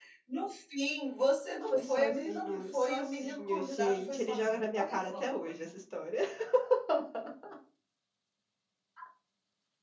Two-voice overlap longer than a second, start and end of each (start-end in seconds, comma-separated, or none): 1.7-5.5